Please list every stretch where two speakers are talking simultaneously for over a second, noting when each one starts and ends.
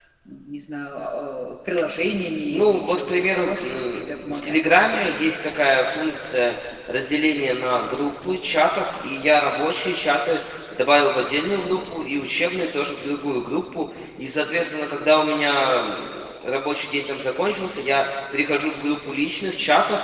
2.5-4.6

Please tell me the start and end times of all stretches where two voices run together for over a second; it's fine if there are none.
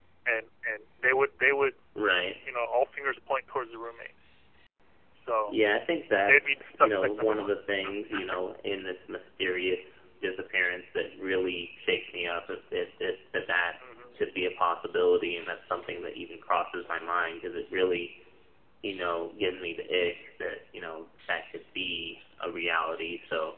6.3-7.9

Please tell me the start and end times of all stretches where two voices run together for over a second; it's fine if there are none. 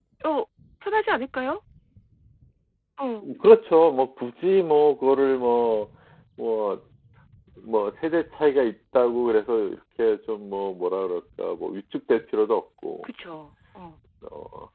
none

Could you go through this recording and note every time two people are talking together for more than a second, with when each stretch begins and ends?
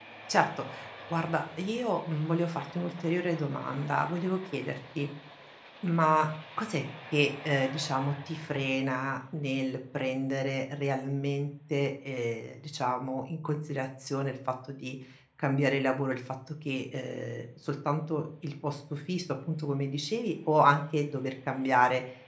none

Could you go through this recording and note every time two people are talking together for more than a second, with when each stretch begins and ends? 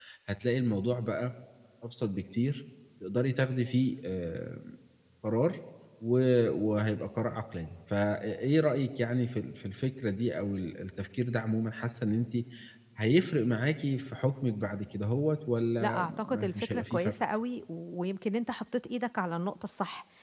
15.8-17.1

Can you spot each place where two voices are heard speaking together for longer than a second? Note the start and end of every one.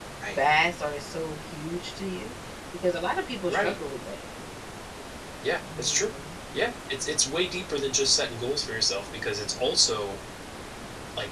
none

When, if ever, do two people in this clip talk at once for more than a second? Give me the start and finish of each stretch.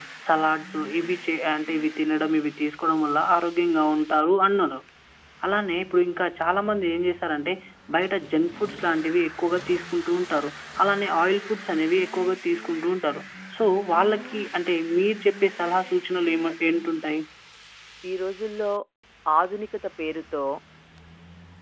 none

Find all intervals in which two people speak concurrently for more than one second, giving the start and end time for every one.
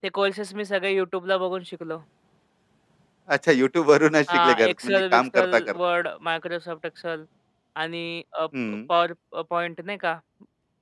4.3-5.8

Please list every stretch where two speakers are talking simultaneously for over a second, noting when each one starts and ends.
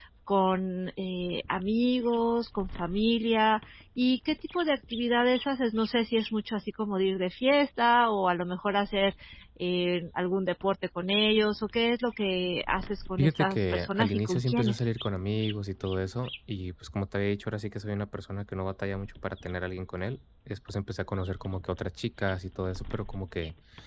13.2-14.7

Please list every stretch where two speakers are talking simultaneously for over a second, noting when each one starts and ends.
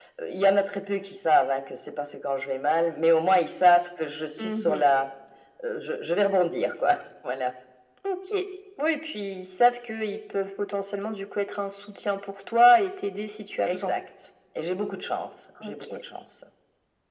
none

